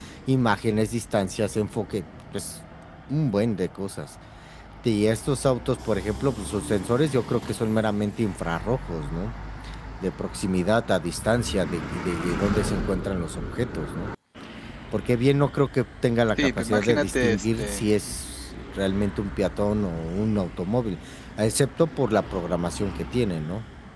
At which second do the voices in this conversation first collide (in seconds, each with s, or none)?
16.4 s